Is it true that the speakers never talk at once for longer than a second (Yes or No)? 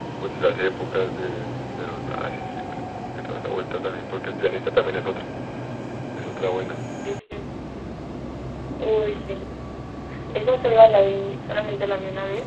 Yes